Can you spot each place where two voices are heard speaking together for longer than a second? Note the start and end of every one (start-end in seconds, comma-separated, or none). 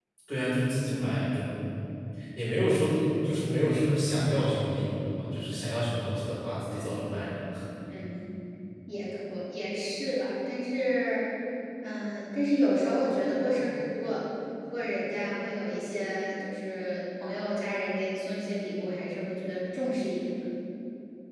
none